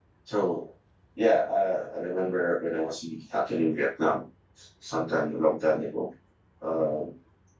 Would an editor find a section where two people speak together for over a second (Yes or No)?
No